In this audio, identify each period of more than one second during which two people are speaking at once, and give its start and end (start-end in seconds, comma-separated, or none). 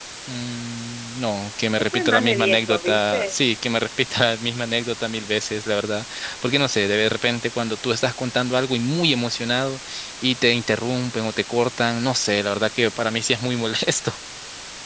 1.9-3.3